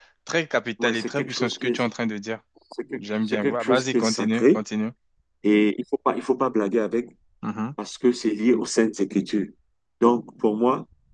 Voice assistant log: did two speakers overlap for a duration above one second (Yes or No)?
Yes